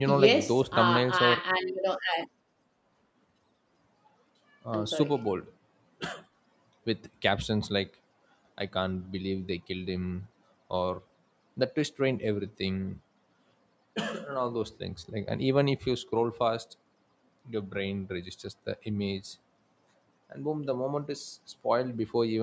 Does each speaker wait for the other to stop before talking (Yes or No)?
No